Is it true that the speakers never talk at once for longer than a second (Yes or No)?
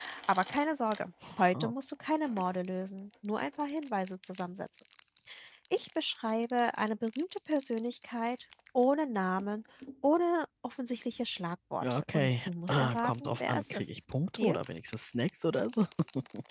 No